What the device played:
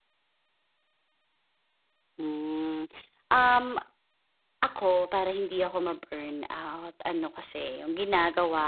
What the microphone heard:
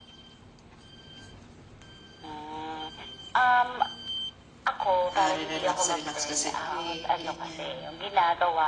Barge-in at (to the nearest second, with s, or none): 5 s